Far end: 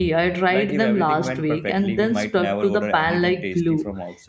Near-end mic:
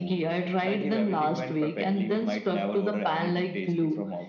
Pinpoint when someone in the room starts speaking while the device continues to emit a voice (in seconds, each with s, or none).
none